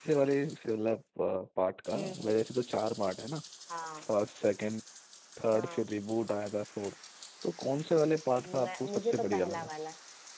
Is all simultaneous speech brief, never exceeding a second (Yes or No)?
No